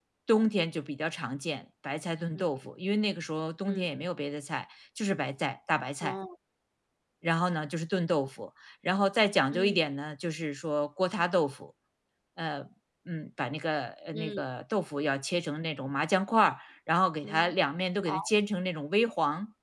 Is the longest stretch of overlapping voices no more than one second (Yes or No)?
Yes